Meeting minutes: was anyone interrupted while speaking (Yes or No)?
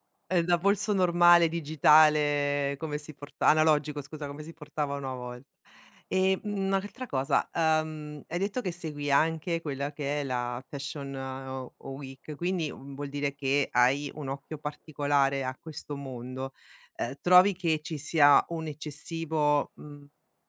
No